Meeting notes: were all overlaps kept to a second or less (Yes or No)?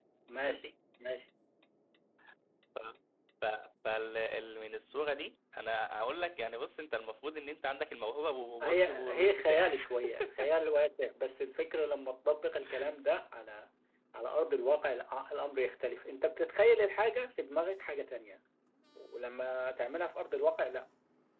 No